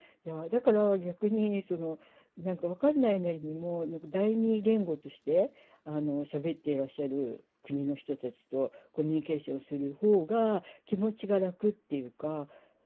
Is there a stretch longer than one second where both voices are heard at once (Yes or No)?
No